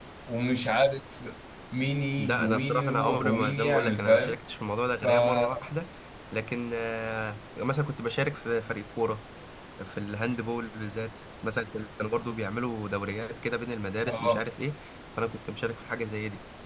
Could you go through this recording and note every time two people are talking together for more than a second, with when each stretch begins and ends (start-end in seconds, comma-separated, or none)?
2.2-4.3